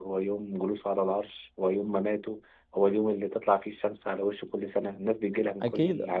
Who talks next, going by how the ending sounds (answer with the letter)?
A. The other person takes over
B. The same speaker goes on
A